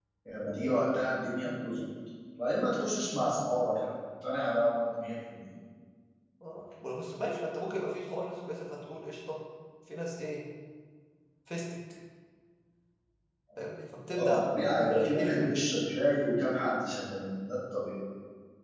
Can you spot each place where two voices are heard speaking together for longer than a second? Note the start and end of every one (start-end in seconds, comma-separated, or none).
14.2-15.5